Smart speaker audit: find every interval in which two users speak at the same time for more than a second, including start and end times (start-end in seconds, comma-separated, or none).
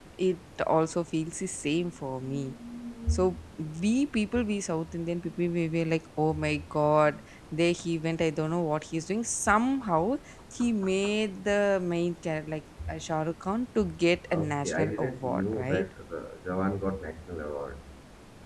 14.3-15.8